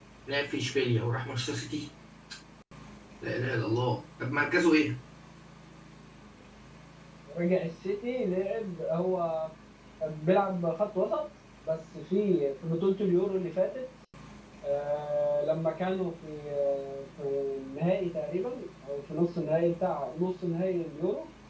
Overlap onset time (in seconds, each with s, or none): none